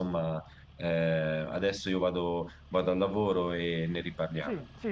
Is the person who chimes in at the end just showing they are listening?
No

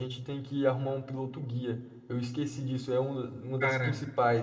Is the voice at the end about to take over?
No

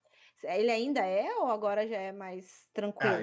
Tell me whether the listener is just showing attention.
No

